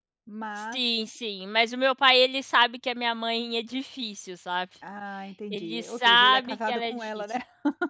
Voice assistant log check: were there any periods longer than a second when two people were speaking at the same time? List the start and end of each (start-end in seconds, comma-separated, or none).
5.5-7.2